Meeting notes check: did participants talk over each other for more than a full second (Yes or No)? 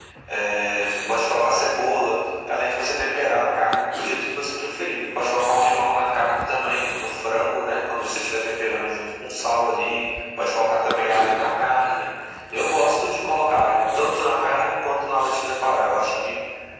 No